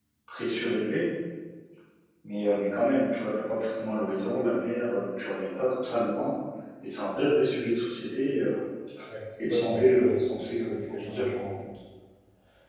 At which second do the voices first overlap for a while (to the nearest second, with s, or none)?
9 s